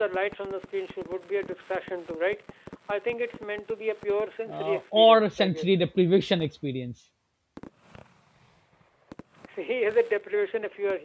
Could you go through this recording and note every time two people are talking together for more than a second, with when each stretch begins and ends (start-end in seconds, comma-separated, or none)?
4.5-5.7